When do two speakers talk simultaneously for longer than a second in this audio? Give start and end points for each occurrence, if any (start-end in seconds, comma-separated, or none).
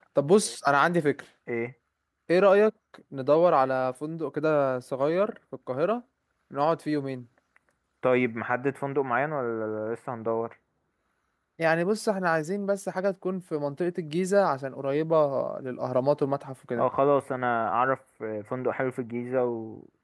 none